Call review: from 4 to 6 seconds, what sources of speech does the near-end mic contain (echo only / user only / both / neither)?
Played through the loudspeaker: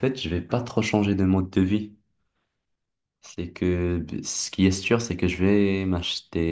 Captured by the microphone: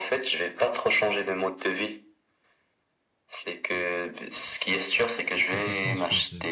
both